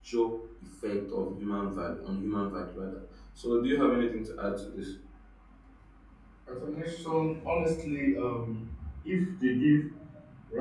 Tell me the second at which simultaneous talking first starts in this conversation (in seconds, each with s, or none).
none